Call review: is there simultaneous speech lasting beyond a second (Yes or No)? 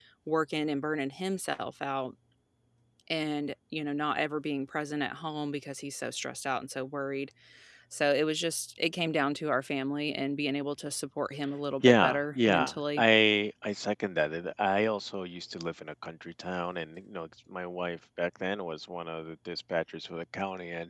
Yes